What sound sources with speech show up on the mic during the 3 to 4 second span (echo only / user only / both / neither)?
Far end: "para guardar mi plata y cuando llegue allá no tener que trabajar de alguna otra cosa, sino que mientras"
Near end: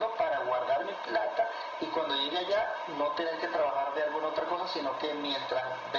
echo only